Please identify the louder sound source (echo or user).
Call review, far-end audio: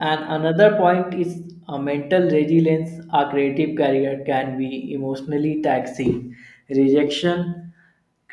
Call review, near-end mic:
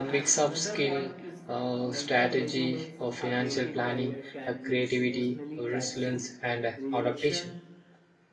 user